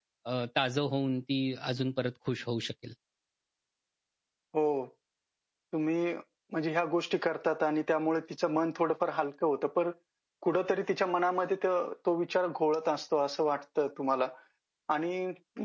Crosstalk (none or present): none